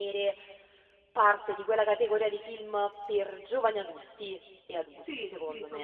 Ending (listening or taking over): taking over